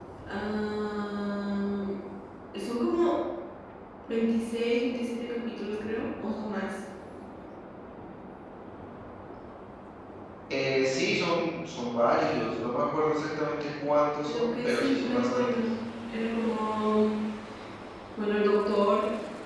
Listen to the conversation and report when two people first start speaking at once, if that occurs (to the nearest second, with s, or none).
14 s